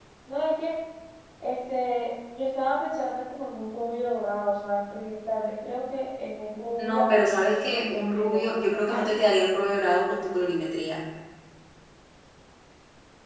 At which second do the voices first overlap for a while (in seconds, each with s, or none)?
6.8 s